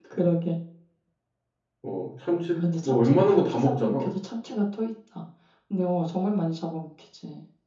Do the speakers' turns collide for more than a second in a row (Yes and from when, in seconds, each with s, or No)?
Yes, from 2.6 s